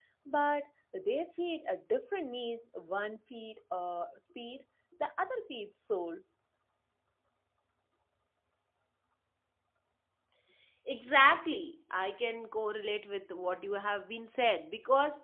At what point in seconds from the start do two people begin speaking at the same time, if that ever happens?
none

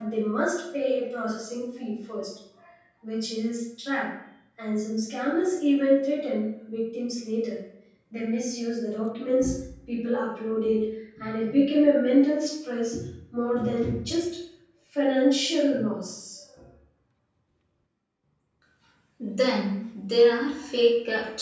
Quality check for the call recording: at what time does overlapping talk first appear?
none

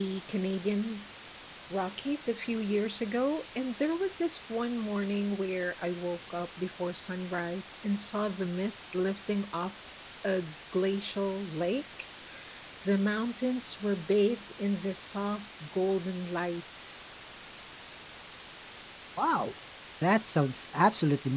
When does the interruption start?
none

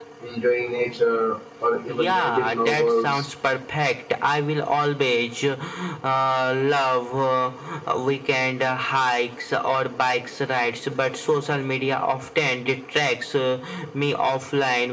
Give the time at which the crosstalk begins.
1.9 s

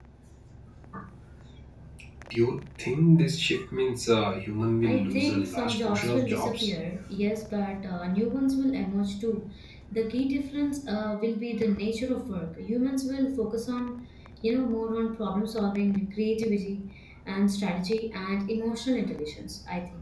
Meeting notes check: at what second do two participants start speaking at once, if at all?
4.8 s

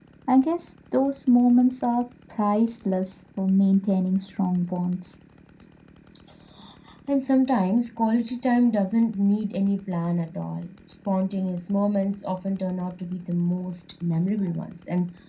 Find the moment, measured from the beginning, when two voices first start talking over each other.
none

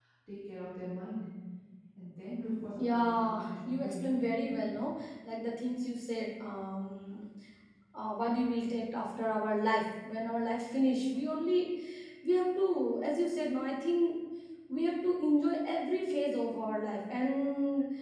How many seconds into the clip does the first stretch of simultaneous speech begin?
2.8 s

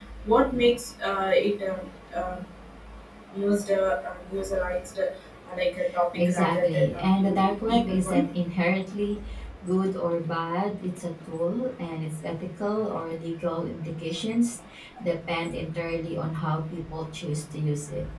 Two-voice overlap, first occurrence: 6.1 s

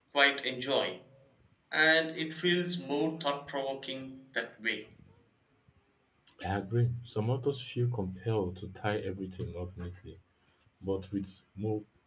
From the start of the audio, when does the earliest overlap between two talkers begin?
none

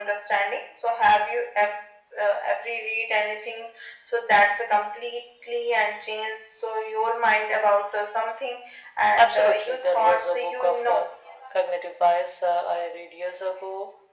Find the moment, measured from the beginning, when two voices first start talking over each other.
9.1 s

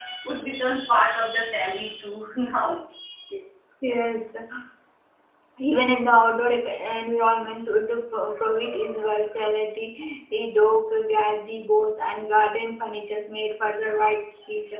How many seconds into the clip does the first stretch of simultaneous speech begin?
none

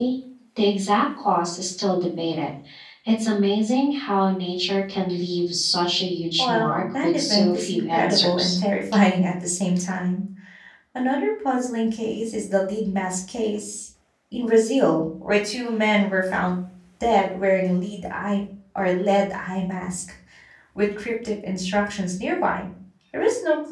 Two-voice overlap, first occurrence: 6.4 s

